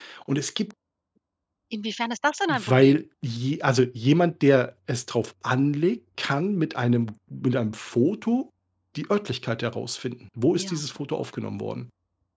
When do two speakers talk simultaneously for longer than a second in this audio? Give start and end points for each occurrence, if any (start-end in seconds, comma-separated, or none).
none